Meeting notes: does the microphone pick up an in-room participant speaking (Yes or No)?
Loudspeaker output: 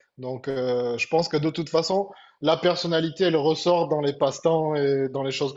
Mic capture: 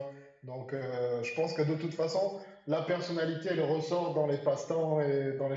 No